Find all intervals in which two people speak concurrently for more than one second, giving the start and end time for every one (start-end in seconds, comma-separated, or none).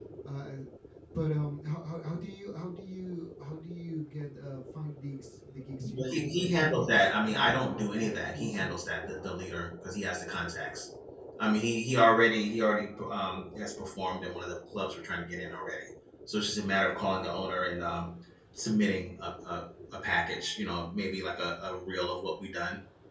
5.8-8.7